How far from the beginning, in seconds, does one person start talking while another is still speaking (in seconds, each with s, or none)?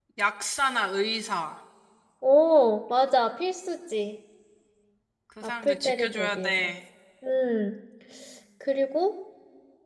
5.4 s